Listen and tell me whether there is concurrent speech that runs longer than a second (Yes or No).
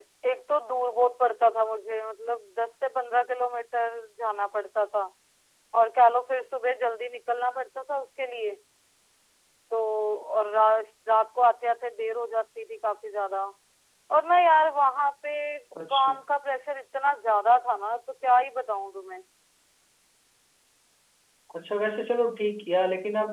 No